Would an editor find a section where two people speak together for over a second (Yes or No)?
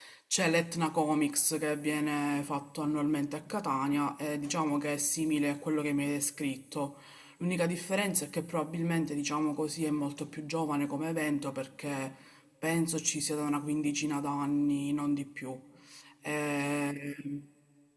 No